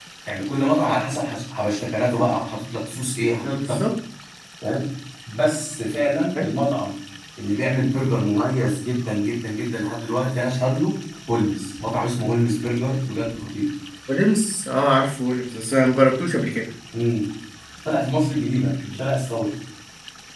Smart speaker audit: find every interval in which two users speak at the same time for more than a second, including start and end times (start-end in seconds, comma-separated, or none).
none